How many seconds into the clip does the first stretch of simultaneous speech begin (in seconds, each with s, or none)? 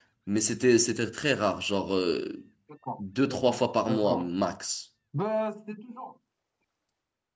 3.0 s